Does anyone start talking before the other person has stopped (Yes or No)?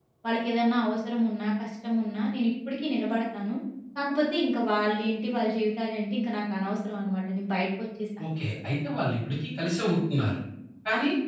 No